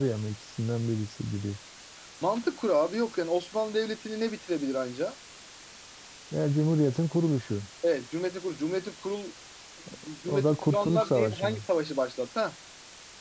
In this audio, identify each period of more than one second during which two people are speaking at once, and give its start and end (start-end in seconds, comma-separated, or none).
10.3-11.6